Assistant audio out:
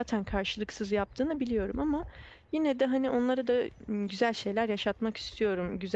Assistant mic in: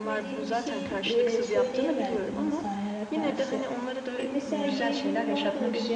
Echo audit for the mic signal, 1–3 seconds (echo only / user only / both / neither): both